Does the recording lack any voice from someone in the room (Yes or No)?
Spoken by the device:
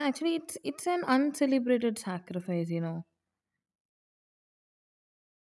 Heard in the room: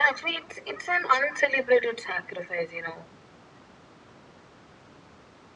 Yes